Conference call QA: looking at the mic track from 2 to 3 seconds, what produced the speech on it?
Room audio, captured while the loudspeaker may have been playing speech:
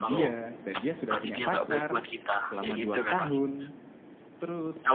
both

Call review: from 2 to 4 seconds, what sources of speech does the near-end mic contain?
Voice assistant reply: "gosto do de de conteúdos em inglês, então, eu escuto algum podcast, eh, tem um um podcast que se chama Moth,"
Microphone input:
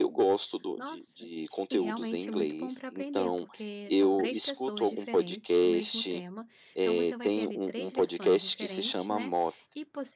both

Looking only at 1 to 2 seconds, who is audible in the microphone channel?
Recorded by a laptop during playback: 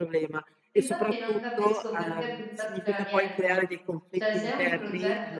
both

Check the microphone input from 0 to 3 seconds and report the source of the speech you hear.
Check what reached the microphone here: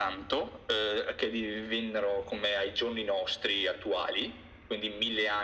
echo only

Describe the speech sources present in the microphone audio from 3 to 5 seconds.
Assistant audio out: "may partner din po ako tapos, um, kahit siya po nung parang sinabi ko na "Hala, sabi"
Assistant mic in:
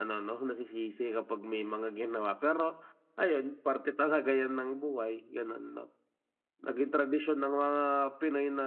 user only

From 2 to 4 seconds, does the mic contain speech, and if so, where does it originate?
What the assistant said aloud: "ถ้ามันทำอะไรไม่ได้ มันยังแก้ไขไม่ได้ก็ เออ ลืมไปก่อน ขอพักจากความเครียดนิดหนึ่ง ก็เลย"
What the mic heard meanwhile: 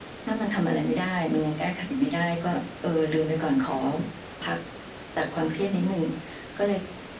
echo only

